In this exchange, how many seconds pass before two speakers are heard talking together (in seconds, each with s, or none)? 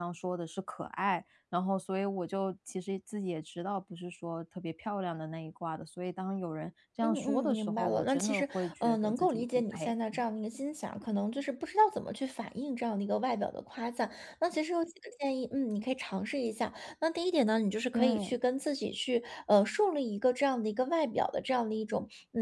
7.0 s